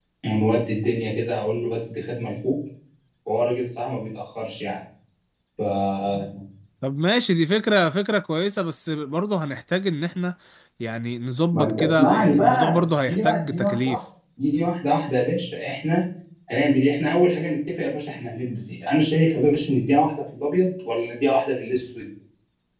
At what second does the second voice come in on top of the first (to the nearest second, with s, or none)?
12 s